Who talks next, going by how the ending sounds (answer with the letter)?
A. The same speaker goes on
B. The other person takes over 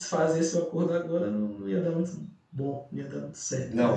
B